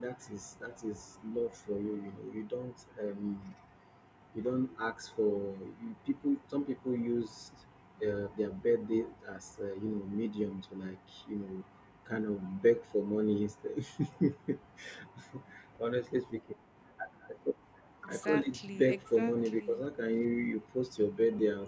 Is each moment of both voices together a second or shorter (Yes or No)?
No